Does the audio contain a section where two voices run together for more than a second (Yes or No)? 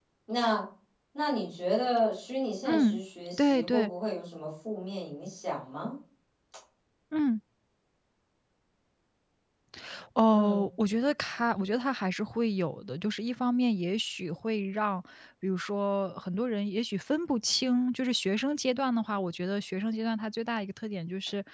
Yes